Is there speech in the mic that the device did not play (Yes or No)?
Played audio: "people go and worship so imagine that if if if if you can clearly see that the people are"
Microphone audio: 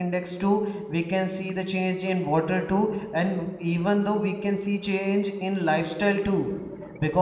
Yes